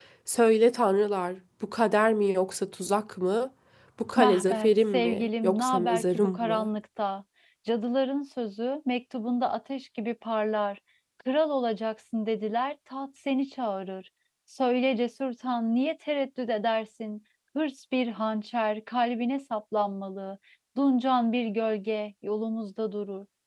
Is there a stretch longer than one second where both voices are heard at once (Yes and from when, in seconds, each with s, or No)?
Yes, from 4.2 s